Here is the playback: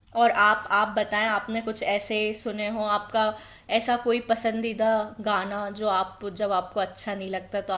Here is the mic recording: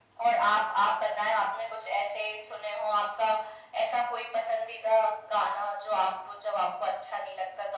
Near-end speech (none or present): none